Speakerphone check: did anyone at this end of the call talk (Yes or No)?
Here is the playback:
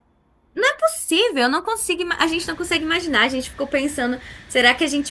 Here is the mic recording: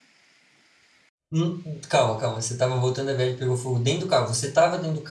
Yes